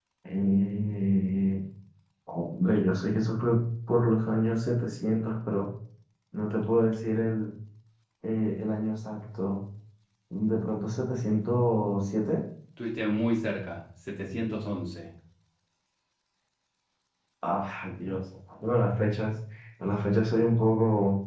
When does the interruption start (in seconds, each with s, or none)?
none